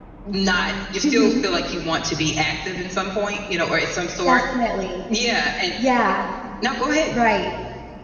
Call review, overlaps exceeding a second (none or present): none